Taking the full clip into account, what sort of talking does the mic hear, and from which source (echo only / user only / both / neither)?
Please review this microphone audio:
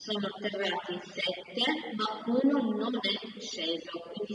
echo only